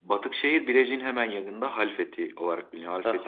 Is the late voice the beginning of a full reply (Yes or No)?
Yes